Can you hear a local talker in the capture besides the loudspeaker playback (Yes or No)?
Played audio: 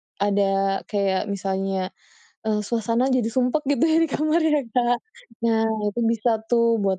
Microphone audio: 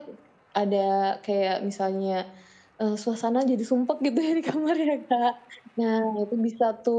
No